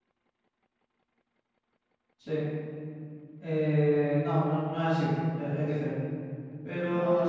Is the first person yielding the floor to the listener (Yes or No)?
No